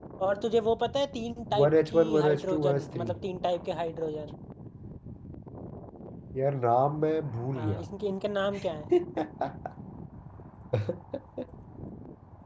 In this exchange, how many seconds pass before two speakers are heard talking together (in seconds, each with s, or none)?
1.6 s